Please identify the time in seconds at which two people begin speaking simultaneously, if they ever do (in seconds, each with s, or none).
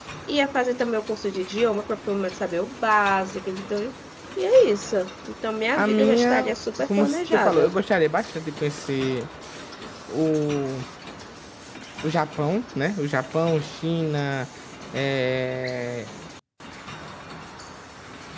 5.8 s